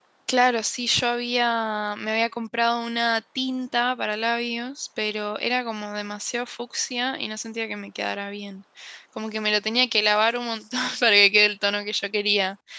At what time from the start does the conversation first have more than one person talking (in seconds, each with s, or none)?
none